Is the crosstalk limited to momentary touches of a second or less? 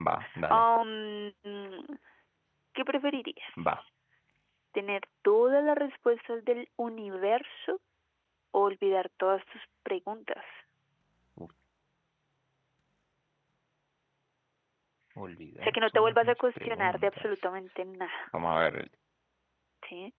No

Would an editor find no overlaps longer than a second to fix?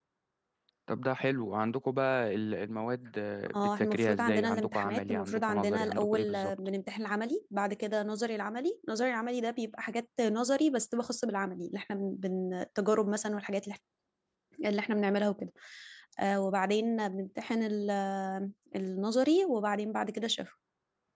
No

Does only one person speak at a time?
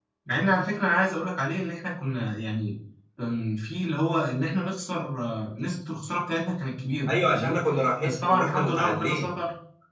No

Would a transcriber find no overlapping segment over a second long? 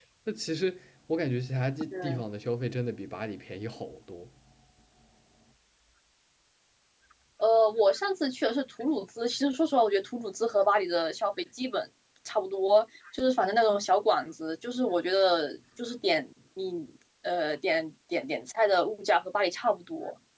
Yes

